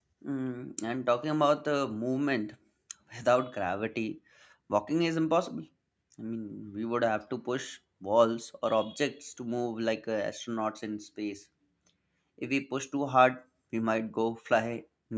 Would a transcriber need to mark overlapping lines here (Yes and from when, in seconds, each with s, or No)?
No